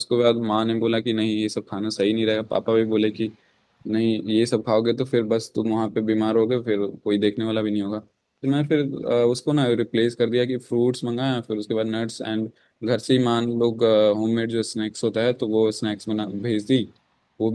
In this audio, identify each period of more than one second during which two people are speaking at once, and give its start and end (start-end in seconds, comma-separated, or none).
none